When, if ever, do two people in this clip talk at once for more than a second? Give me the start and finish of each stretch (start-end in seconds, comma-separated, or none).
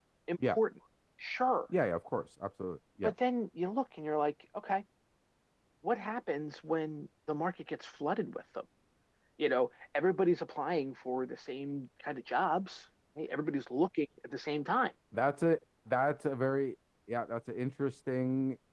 none